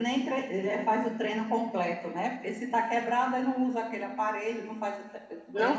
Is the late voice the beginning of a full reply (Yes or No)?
Yes